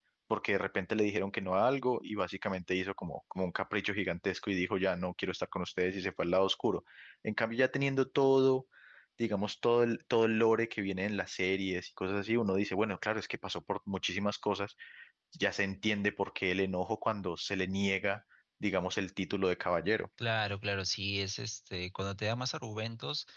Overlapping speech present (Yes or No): No